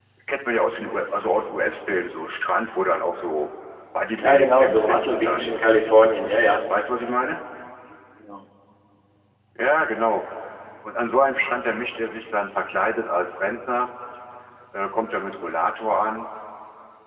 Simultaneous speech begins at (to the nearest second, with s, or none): 4 s